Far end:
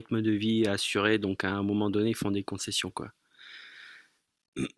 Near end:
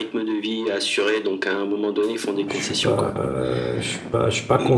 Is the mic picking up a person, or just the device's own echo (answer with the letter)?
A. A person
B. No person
A